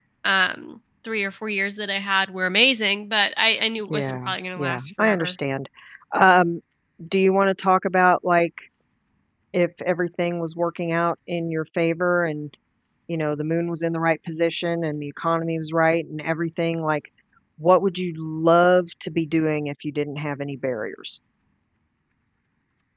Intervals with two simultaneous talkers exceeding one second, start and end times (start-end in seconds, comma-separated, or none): 3.9-5.4